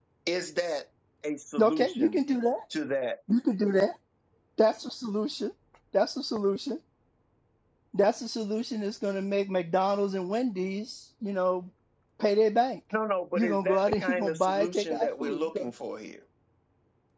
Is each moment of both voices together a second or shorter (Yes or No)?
No